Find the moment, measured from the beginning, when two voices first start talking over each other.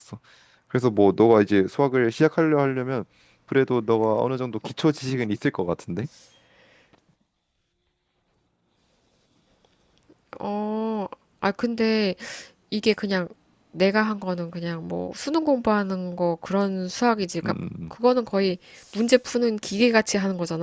none

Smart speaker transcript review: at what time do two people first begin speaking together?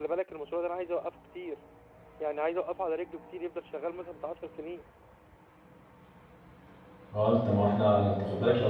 none

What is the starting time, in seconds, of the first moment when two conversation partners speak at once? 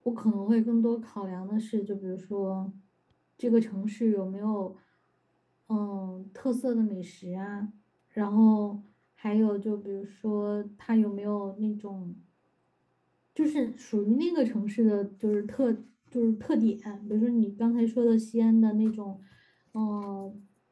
none

